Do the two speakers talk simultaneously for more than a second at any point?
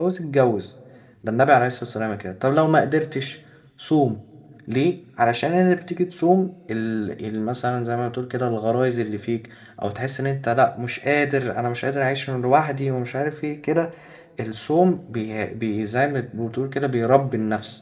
No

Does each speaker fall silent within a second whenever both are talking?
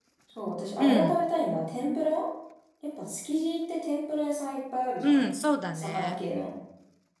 Yes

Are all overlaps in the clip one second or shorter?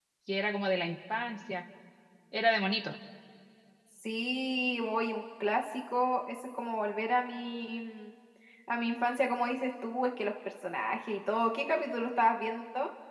Yes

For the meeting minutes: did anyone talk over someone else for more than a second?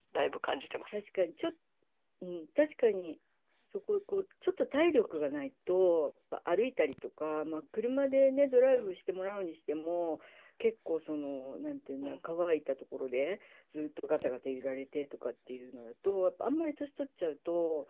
No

